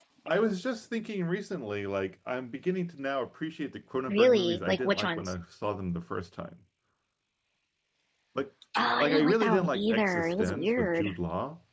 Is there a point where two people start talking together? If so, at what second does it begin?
4 s

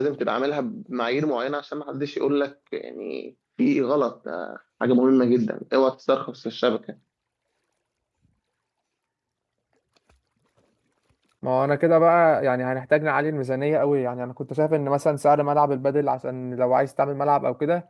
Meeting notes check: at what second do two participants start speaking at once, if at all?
none

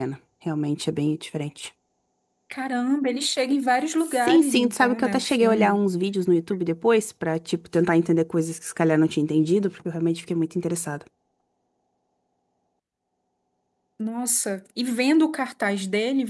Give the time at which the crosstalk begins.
4 s

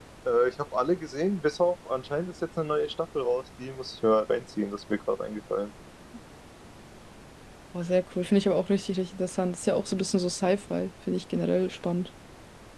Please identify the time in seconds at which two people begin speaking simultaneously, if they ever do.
none

